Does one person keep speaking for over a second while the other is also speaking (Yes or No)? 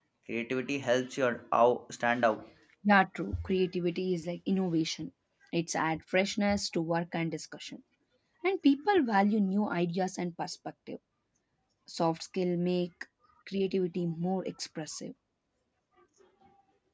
No